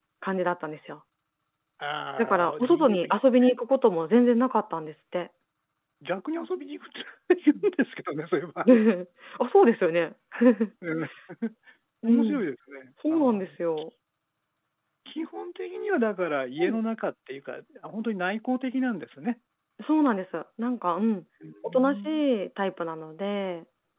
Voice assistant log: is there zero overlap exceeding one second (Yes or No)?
No